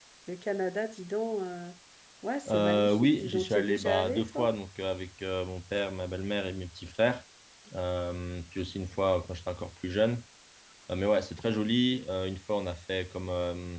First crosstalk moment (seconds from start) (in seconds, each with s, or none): 2.5 s